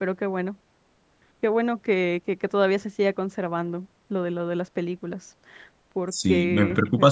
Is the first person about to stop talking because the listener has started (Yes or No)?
Yes